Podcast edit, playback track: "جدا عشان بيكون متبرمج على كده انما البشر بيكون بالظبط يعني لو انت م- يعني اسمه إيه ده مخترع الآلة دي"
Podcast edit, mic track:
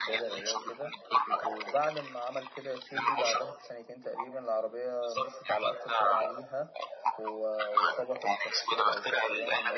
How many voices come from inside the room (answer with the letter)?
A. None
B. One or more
B